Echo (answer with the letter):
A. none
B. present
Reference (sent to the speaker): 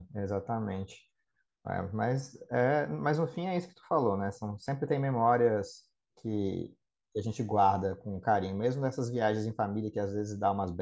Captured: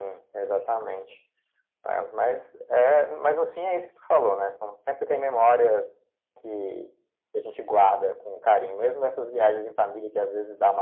B